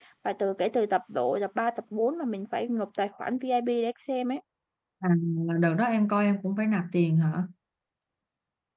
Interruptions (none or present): none